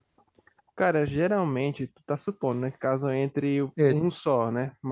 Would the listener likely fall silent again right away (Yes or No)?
Yes